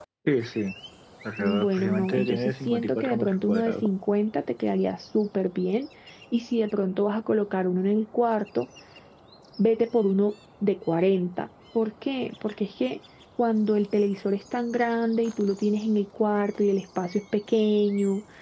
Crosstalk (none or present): present